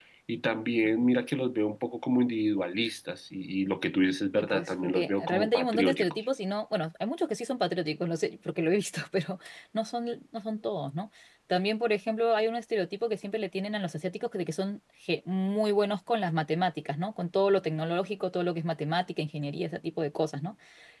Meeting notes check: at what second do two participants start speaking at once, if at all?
4.4 s

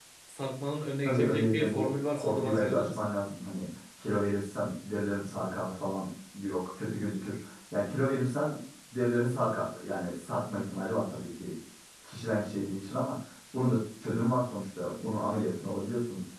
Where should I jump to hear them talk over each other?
1.0 s

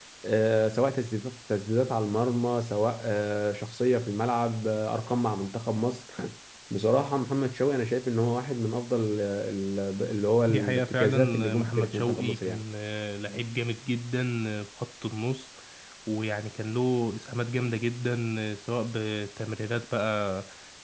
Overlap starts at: 10.5 s

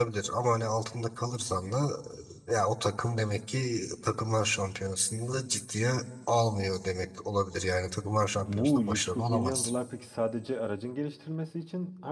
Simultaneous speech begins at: 8.3 s

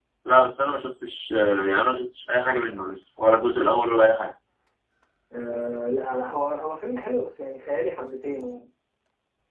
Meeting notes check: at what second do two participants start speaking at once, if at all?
none

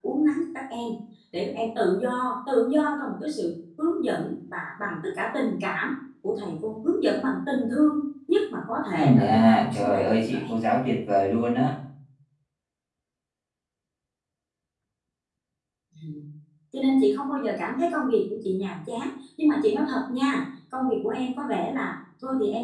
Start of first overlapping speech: 8.9 s

